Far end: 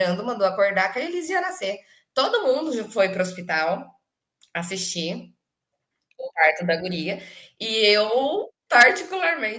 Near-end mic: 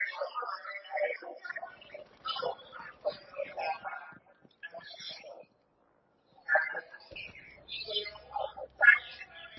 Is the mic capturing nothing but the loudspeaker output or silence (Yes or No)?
Yes